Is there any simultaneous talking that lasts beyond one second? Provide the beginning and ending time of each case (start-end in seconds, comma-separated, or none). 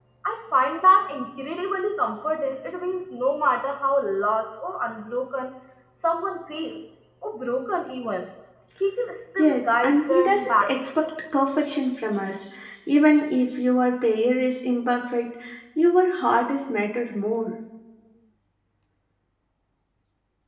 9.4-10.8